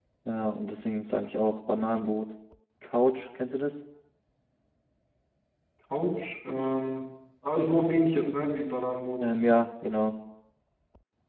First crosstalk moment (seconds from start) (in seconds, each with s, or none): none